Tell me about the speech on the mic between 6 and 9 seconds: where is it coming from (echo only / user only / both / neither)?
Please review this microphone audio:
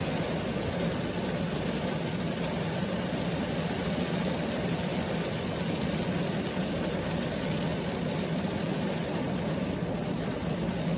neither